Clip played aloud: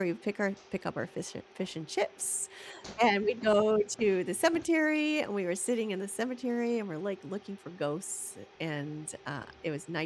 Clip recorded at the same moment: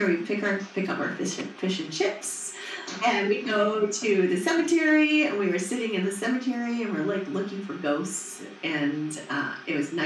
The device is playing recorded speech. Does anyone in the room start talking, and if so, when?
none

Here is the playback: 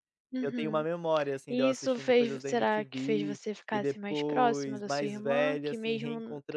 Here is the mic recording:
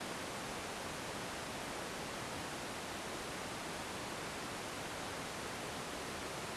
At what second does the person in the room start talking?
none

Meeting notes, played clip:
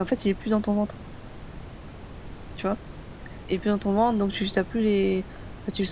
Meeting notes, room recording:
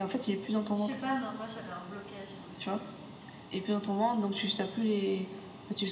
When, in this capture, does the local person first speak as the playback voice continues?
1 s

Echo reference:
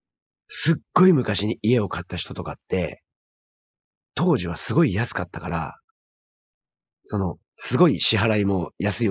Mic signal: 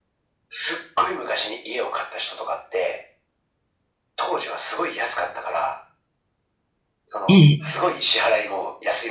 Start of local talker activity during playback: 7 s

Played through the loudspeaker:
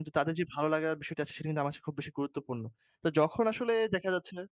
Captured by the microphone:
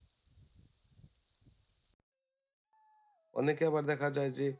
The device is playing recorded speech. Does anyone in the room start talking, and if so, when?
3 s

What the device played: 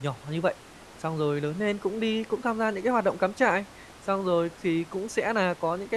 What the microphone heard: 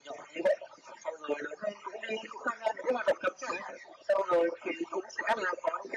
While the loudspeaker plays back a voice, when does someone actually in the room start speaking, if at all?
none

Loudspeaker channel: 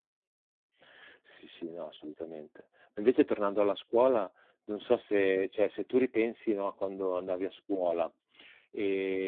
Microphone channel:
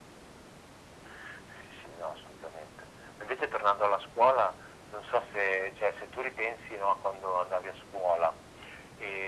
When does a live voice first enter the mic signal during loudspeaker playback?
none

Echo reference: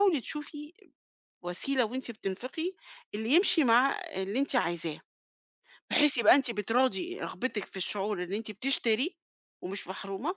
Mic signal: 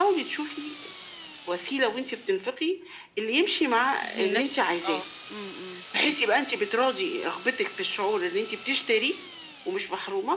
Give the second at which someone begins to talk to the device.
4 s

